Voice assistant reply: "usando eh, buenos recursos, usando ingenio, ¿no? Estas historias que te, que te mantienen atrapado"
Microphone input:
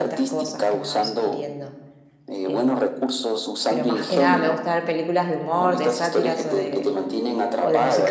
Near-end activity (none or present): present